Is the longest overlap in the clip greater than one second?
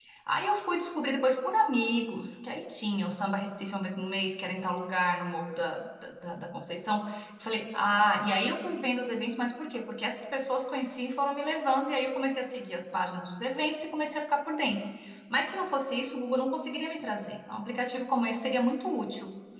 No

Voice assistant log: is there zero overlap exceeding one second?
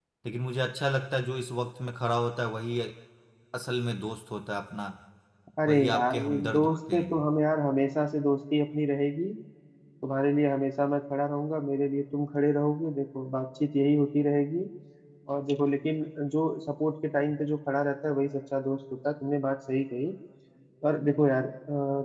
No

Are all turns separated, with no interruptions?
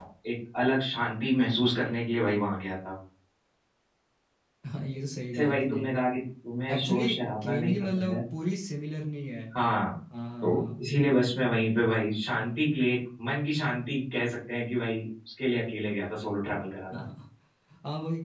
No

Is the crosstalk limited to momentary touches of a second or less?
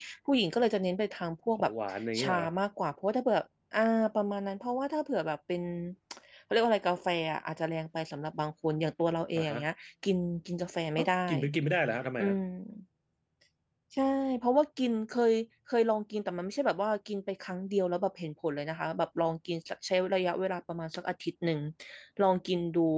Yes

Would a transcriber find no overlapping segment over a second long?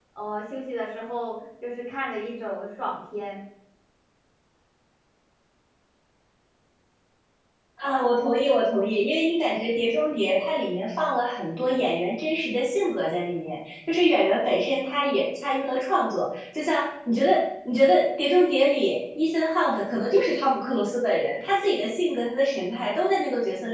Yes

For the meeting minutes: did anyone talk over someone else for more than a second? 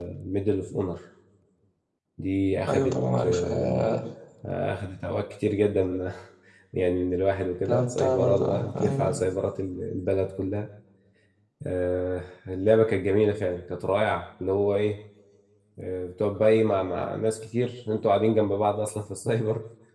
Yes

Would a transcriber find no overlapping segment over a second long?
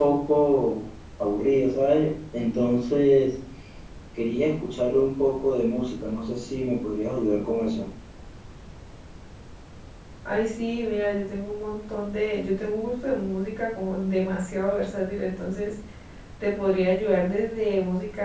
Yes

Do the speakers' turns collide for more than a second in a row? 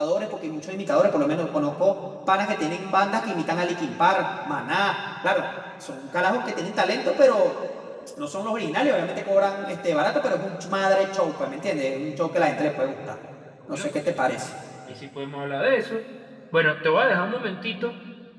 No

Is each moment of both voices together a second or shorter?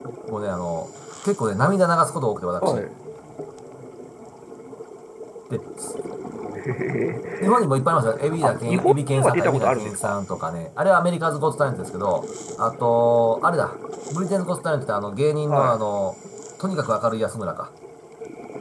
No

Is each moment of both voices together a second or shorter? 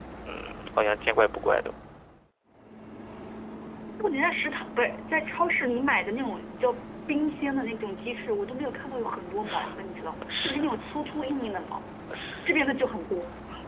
Yes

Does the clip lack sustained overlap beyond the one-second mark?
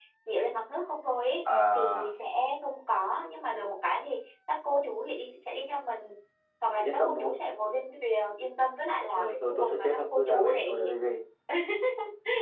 No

